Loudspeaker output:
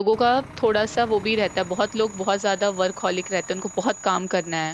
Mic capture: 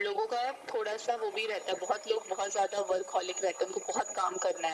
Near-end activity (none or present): none